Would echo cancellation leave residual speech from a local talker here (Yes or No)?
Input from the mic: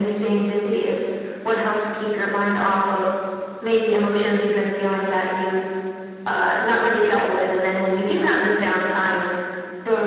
No